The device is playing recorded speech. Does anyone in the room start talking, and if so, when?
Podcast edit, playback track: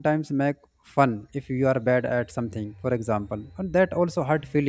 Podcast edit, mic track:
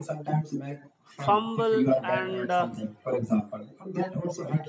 1.1 s

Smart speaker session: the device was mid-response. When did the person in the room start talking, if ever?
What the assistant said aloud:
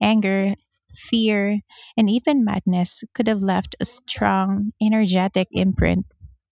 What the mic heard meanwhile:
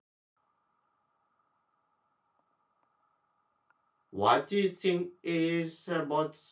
4.1 s

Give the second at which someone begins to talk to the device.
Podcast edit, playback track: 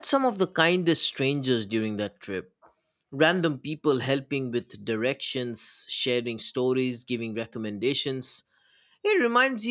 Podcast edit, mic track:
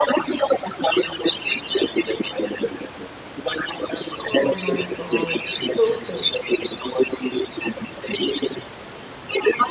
4.3 s

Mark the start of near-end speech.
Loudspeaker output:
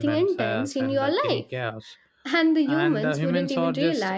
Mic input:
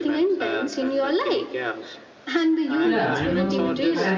2.8 s

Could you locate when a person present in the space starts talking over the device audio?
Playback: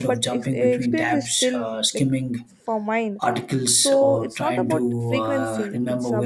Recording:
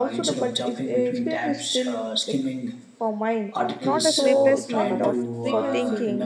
3.8 s

